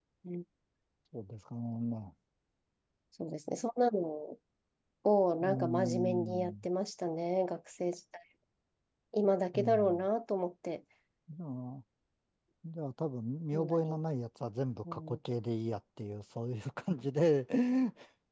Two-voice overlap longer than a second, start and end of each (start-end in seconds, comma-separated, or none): 5.4-6.6